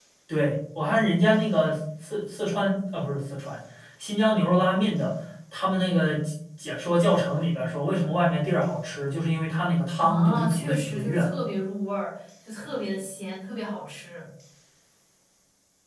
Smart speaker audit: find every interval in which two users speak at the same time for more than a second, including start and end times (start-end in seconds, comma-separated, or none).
10.0-11.3